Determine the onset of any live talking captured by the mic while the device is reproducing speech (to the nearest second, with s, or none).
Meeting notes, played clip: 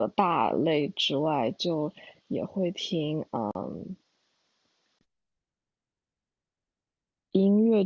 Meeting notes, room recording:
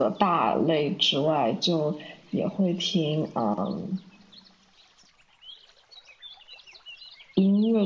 none